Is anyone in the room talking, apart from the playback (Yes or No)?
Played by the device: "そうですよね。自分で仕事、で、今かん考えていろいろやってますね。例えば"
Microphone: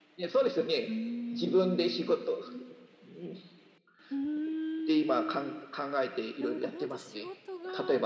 Yes